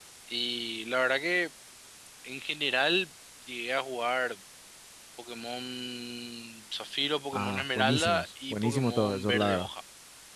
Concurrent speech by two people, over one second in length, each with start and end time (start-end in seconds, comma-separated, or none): 7.3-9.7